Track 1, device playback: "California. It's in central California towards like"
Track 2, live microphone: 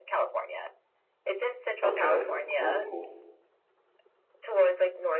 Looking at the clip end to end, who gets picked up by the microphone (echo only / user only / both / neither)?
both